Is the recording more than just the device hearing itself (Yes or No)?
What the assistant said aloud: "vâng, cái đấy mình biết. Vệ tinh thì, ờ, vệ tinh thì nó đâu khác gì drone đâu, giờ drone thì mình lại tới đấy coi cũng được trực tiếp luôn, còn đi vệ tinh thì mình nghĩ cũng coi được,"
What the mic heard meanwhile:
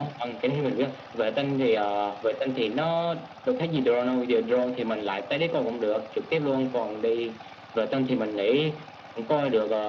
No